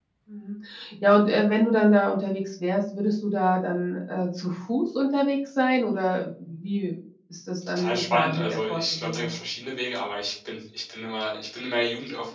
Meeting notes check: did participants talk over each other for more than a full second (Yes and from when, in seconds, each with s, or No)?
Yes, from 7.6 s